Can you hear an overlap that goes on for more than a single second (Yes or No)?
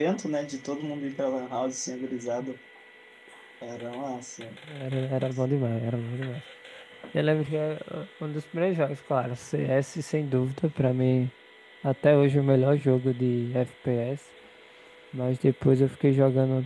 No